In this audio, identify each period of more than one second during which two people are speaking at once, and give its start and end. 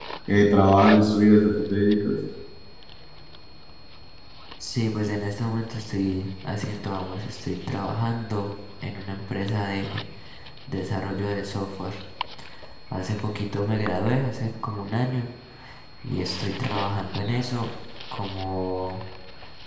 none

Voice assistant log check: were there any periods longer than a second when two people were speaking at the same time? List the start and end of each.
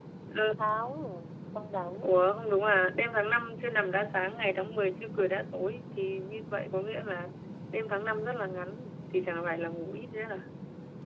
none

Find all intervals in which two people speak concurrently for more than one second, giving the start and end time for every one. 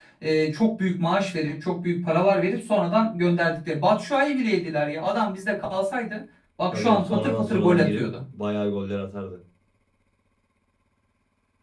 6.7-8.1

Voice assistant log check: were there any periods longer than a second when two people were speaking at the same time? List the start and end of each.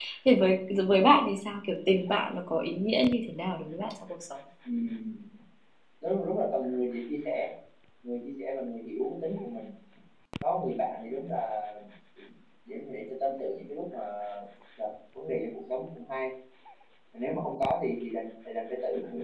none

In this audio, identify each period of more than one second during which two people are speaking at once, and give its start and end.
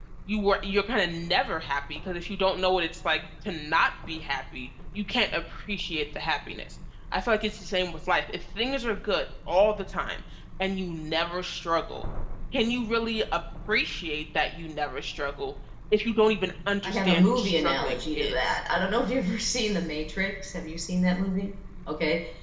16.8-18.6

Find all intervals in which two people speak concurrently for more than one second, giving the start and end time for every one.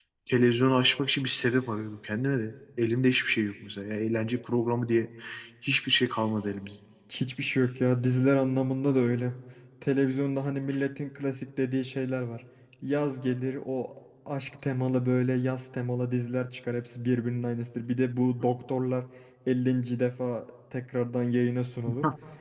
none

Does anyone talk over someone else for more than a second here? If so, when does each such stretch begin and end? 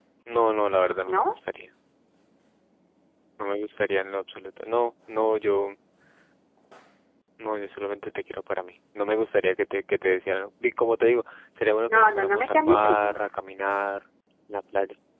11.9-13.2

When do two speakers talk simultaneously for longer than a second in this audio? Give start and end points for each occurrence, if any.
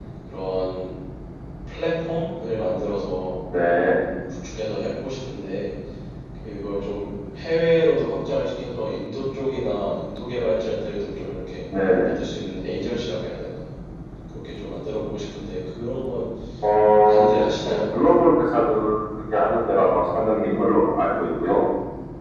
16.9-18.2

